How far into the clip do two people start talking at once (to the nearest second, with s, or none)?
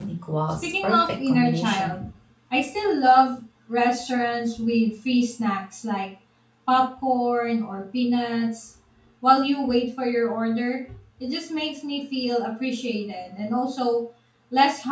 1 s